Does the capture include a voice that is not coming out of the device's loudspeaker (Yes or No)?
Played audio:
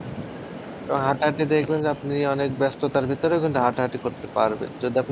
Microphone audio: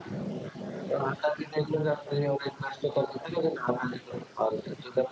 No